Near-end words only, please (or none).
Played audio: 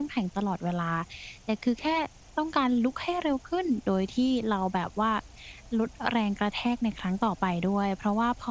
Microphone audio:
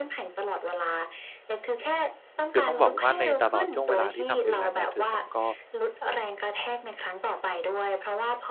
คือต้องบอกว่าในตลอดช่วงเวลาที่ทำ freelance เนี่ย คือผมก็